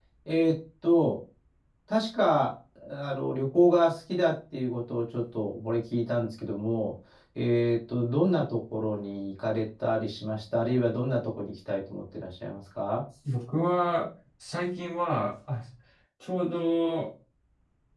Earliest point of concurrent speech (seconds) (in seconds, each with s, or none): none